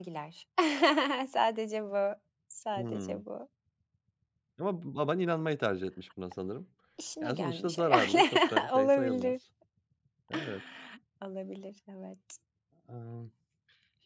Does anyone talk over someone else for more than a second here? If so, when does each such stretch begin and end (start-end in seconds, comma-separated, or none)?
7.2-9.3